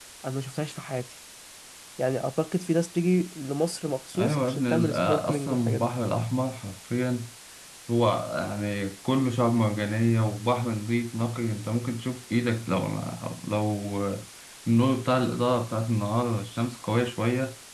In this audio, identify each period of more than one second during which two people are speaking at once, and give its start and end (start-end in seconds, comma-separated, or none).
4.2-5.9